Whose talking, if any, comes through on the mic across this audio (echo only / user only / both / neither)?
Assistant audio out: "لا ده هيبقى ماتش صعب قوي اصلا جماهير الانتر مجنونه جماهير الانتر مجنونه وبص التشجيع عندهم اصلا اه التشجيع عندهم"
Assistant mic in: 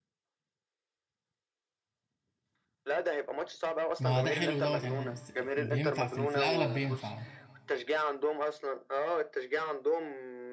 both